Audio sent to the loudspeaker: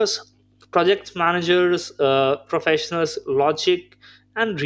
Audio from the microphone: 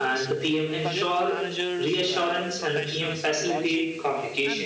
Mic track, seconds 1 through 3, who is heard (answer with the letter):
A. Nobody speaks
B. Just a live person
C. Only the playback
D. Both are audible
D